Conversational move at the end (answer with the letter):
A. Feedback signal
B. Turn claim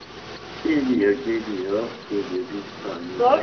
B